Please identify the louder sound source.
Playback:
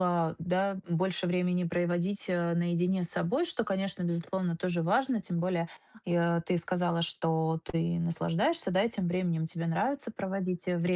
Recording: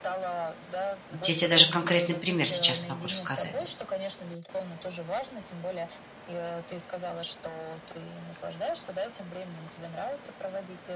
user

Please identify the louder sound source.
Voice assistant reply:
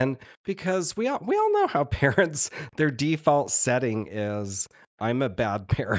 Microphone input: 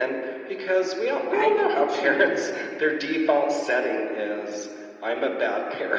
echo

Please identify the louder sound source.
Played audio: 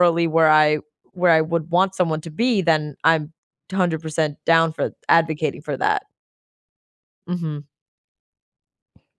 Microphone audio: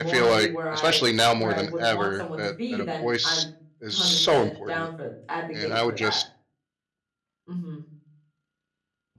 user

